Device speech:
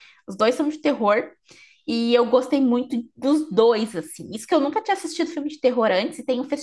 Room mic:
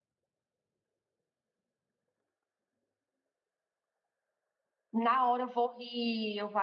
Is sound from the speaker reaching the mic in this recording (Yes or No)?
No